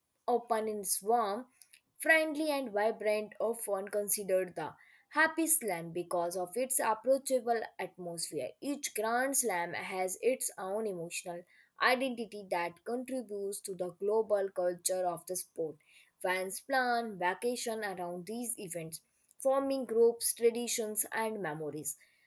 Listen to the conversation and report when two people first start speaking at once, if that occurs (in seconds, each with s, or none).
none